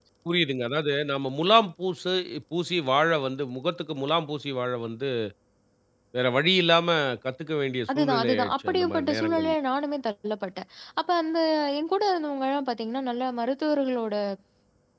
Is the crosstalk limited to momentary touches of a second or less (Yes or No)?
No